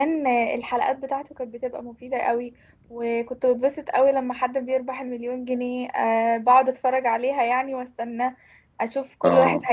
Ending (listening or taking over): listening